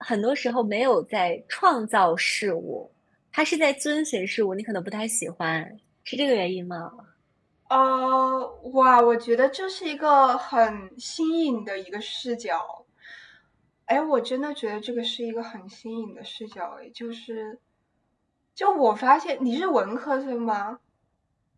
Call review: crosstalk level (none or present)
none